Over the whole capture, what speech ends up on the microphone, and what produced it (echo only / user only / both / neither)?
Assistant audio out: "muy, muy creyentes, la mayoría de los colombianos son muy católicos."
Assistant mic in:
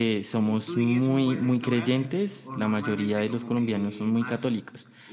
both